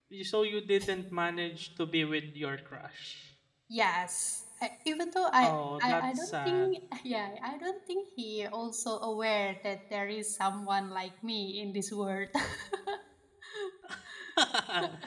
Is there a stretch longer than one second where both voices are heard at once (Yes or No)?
Yes